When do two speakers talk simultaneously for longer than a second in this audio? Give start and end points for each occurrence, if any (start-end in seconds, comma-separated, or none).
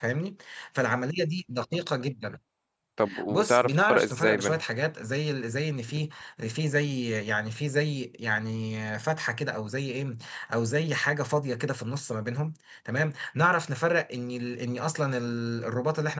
3.3-4.6